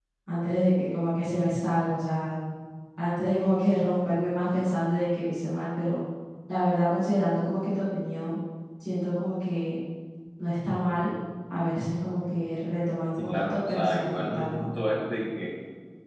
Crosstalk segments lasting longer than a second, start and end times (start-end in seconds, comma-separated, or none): 13.2-14.7